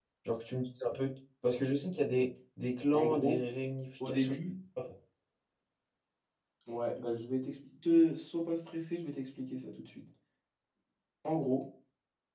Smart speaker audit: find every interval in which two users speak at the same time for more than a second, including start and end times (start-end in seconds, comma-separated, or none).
none